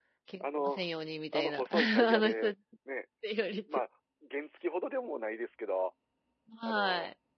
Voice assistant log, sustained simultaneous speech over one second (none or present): present